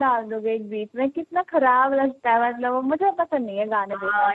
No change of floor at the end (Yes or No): No